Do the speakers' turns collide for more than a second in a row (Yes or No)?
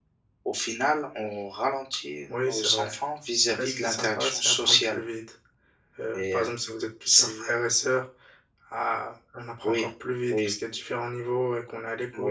Yes